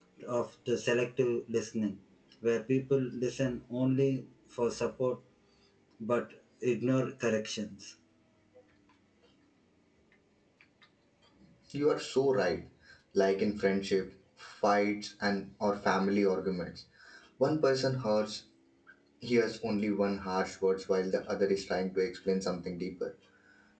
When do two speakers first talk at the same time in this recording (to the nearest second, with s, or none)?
none